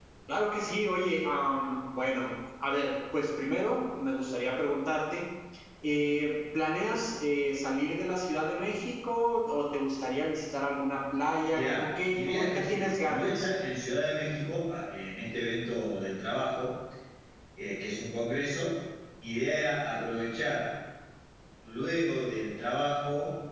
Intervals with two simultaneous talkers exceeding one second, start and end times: 11.5-13.5

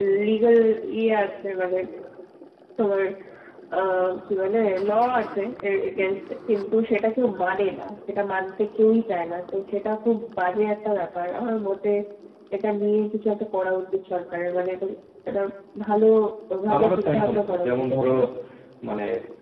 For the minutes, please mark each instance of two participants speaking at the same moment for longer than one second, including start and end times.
16.7-18.1

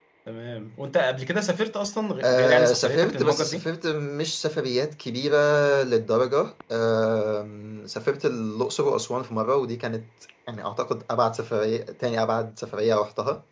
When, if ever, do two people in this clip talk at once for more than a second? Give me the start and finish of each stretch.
2.2-3.7

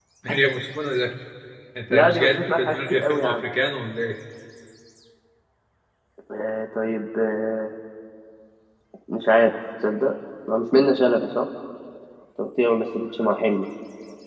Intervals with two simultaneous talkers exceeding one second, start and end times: 1.9-3.4

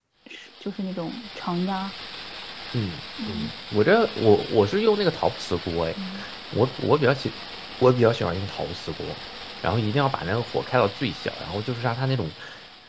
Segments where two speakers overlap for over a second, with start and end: none

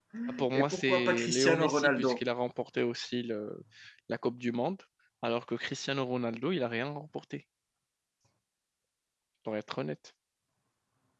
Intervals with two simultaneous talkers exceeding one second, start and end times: 0.5-2.2

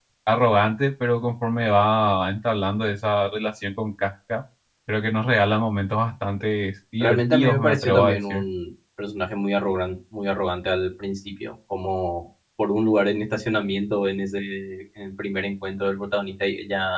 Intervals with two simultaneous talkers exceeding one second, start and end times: 7.0-8.4

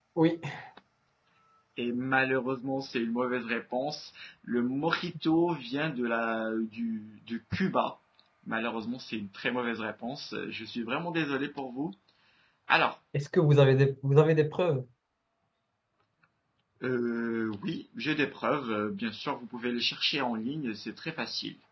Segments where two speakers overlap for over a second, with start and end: none

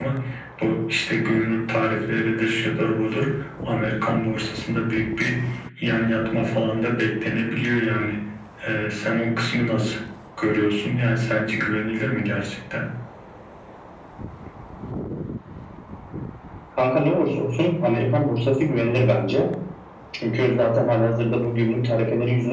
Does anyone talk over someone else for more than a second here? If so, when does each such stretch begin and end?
none

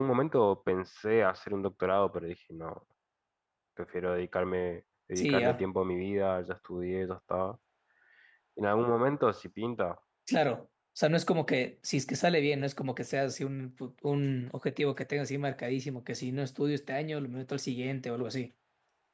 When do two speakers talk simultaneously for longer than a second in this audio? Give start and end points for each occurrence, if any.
none

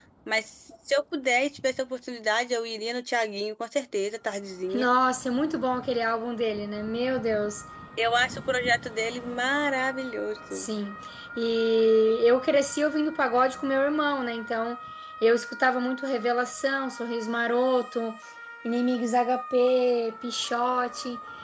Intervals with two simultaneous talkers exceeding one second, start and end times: none

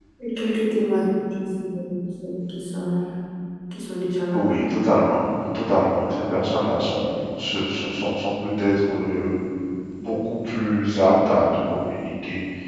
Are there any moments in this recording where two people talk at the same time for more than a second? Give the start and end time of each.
none

